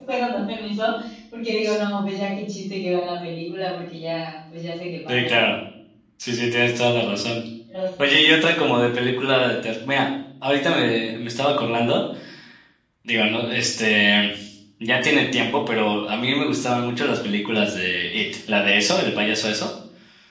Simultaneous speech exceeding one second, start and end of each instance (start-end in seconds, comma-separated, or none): none